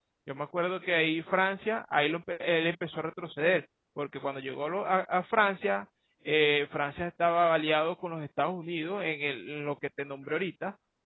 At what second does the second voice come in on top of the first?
none

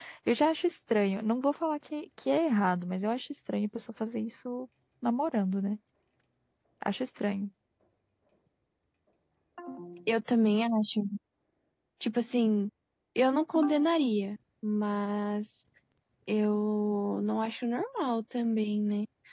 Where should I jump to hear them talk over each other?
none

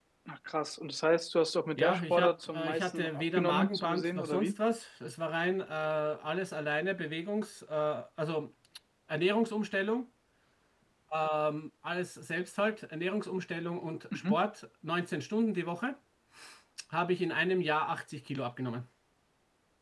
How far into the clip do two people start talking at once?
1.8 s

